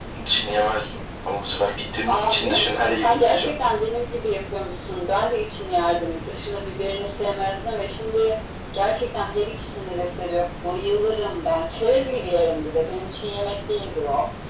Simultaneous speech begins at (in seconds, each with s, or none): 2.1 s